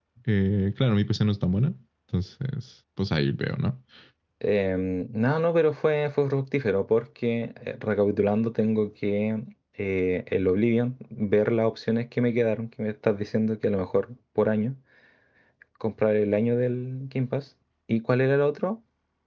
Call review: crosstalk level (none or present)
none